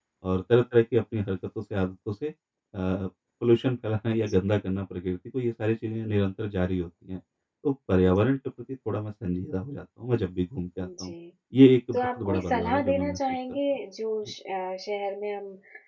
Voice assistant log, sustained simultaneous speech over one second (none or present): present